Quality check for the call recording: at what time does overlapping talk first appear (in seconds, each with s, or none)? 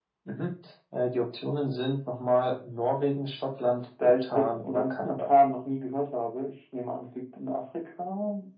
4.0 s